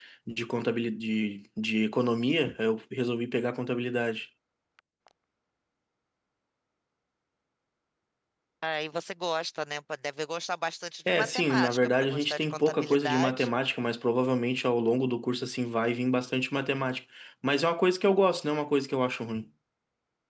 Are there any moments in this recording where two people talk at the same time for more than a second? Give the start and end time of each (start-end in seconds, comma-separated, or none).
11.1-13.5